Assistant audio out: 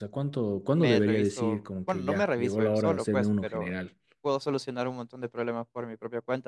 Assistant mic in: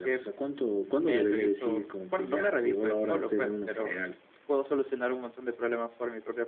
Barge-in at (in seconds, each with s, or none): none